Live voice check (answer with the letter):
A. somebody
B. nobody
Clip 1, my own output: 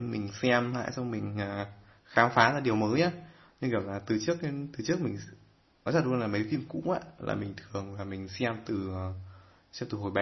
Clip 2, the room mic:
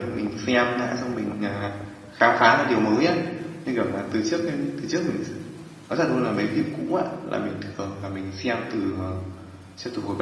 B